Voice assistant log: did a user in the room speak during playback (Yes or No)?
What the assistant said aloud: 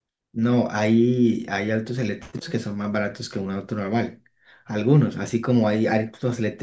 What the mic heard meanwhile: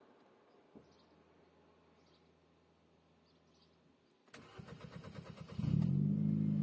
No